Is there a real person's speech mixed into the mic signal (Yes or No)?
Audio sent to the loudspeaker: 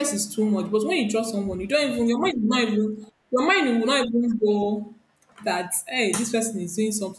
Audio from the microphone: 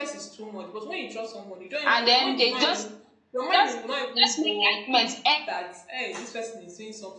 Yes